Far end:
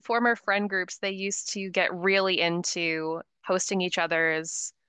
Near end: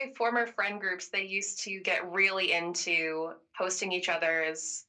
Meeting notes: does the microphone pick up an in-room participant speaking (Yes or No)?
No